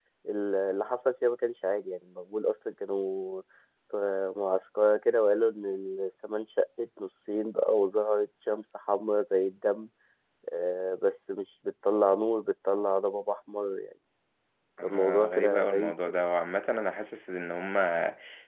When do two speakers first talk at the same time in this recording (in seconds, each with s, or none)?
14.8 s